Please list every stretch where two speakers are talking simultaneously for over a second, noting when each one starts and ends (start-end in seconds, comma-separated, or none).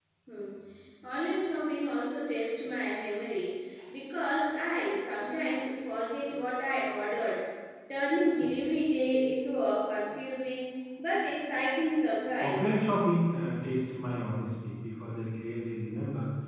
none